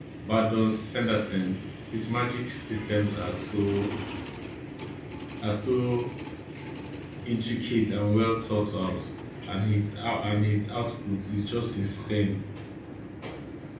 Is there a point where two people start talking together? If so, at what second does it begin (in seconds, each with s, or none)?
none